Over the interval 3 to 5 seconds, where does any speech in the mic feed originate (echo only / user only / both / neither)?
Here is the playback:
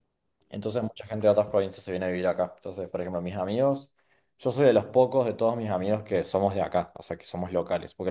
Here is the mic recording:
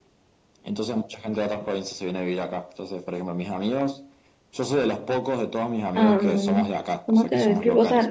echo only